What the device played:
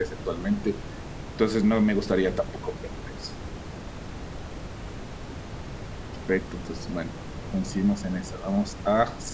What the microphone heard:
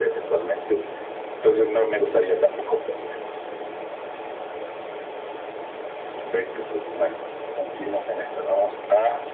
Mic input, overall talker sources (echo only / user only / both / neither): echo only